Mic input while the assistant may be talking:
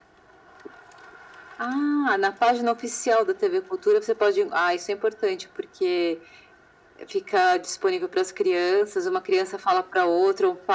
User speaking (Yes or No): No